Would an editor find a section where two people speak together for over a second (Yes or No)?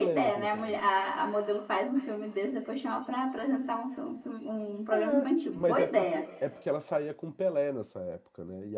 Yes